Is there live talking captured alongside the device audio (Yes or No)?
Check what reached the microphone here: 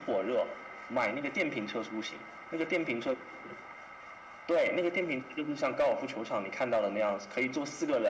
No